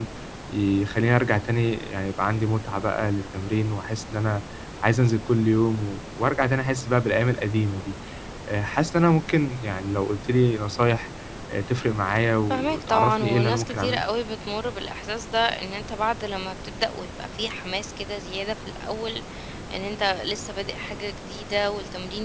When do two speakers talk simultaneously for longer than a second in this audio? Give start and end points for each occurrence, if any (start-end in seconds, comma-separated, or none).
12.5-14.0